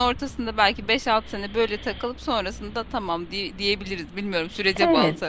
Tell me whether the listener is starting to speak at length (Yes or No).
Yes